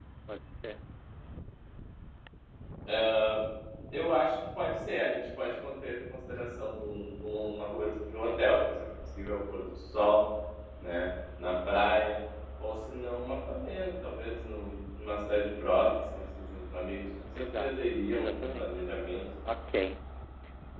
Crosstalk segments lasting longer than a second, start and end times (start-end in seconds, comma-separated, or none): 17.6-18.8